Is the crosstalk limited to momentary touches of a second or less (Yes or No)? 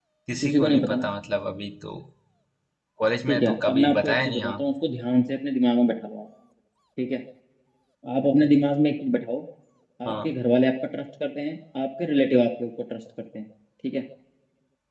No